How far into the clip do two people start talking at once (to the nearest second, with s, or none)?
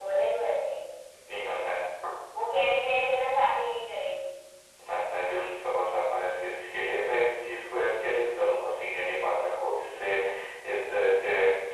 none